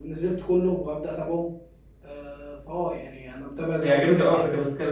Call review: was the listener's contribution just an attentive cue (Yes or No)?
No